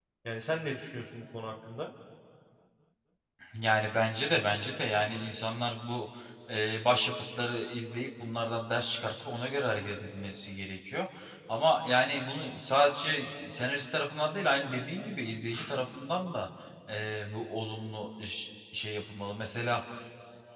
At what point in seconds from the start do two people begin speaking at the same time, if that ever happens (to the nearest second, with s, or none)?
none